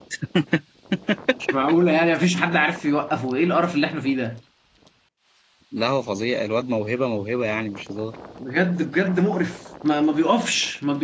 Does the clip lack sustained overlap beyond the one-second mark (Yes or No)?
Yes